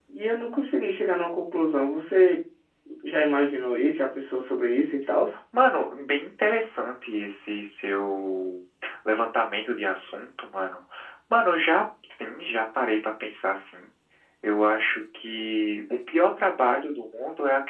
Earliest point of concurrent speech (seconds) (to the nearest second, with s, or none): none